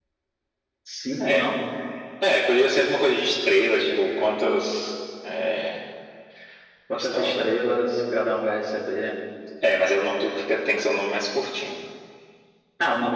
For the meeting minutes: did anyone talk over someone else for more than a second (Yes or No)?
No